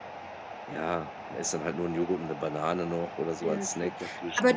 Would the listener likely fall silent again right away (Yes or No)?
No